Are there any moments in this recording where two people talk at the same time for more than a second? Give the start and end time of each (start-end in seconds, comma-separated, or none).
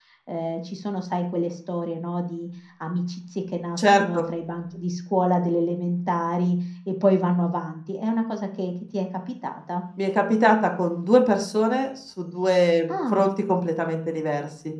none